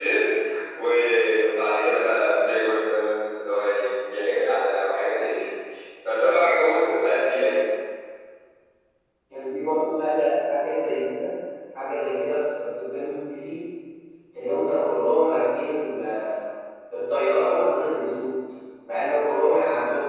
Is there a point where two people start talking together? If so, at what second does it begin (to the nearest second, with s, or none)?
none